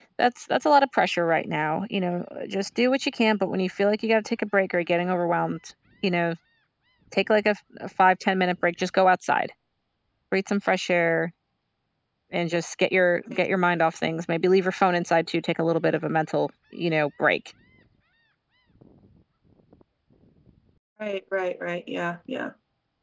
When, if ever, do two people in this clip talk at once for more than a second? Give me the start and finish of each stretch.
none

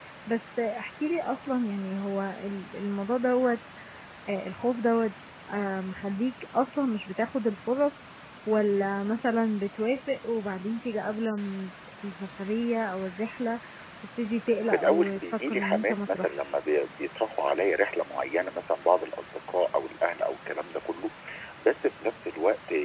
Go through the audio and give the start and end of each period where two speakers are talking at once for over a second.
14.7-16.5

